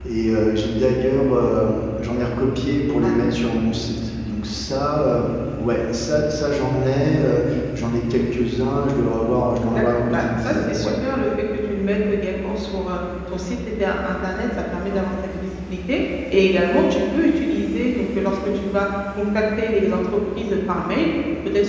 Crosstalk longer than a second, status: present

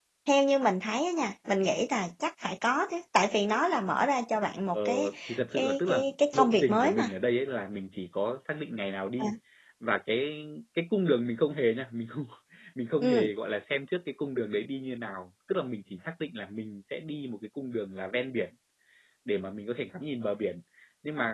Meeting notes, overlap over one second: present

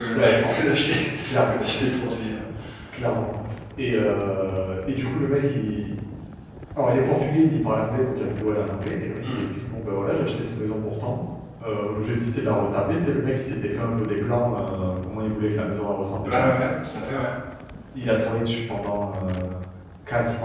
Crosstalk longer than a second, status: none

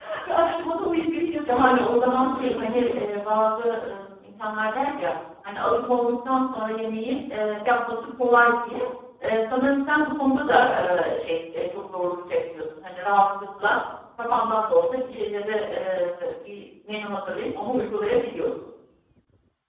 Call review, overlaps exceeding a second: present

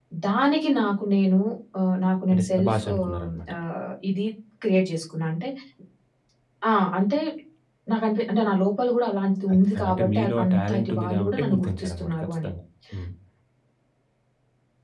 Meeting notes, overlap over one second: present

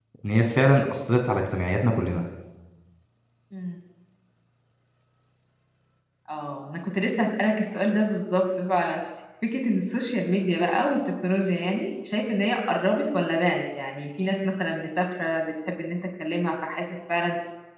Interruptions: none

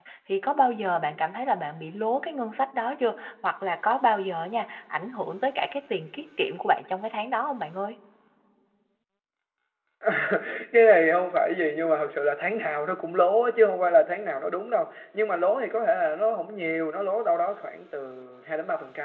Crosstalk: none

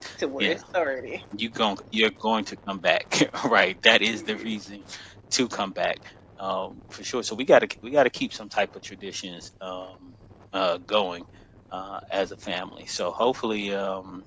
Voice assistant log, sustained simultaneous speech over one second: none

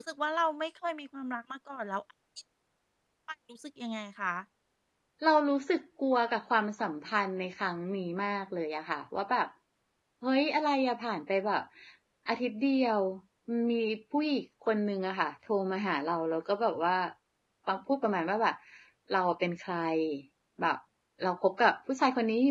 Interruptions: none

